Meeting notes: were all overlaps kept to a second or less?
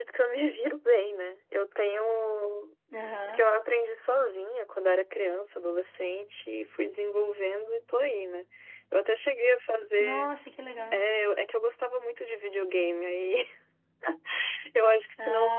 Yes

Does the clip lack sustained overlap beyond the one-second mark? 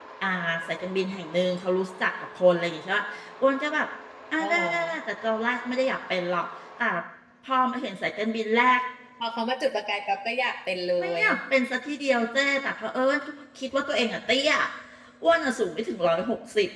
Yes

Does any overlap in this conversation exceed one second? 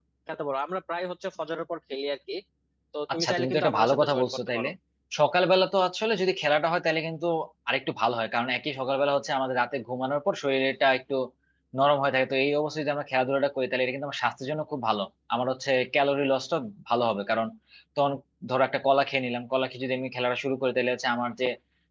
Yes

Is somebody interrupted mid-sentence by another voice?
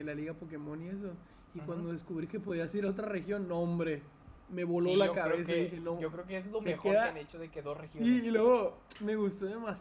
Yes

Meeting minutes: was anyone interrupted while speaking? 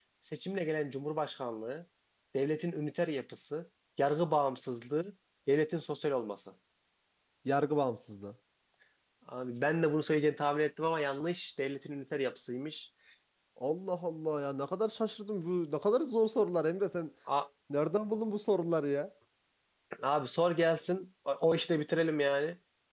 No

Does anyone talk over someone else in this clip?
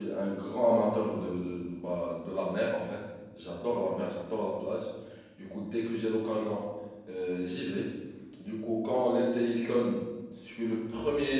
No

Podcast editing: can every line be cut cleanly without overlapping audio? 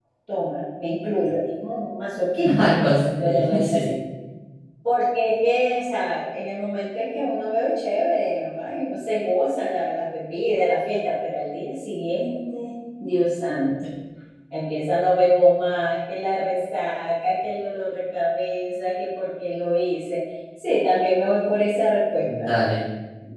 No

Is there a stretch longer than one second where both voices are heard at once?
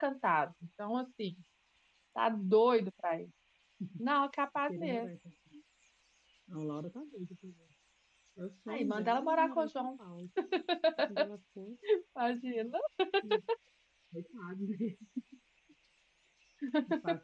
Yes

